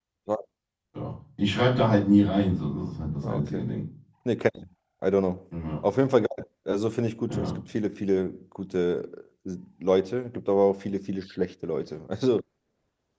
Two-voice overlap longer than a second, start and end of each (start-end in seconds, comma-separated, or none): none